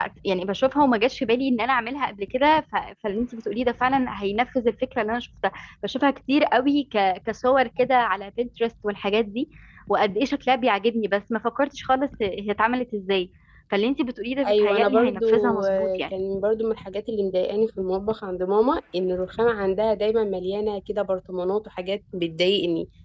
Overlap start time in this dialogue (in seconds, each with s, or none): 14.4 s